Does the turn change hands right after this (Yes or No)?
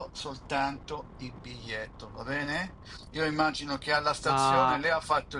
No